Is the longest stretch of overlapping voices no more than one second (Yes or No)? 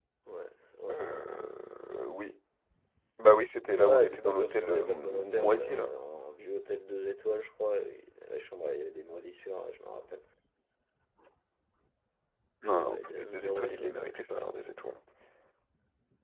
No